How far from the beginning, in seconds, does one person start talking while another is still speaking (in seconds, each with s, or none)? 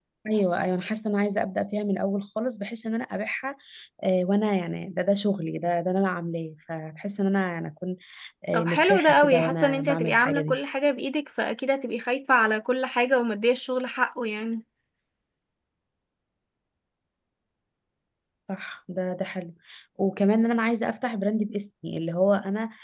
8.5 s